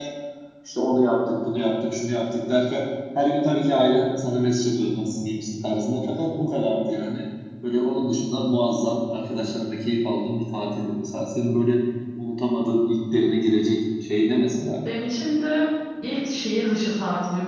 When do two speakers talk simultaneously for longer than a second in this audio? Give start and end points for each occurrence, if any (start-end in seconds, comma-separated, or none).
none